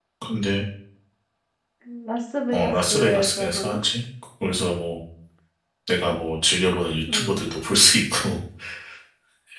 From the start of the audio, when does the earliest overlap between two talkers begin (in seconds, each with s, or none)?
2.5 s